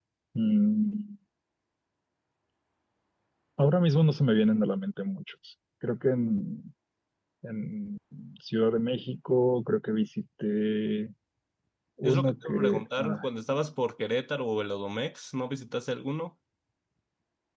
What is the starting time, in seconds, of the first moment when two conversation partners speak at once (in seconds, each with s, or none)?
12.0 s